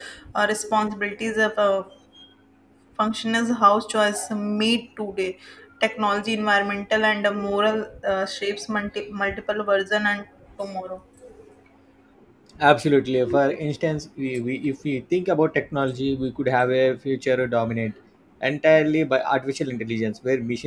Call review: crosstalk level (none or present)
none